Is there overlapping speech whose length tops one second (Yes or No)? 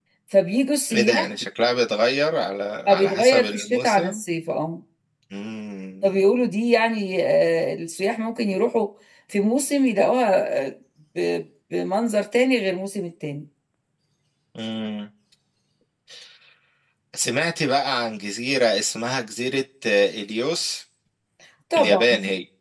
Yes